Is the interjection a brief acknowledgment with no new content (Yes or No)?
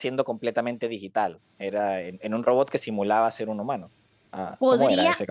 No